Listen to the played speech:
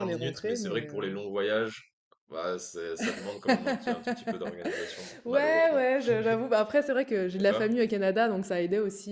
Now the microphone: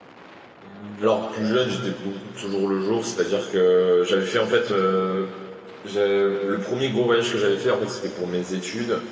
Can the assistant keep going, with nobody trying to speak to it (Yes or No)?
No